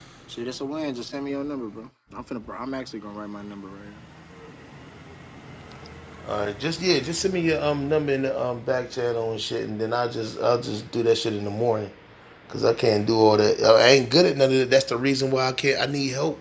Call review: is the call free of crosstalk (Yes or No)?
Yes